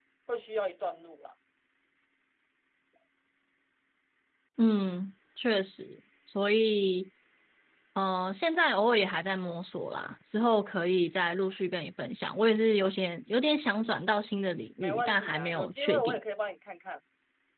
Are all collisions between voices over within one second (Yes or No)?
No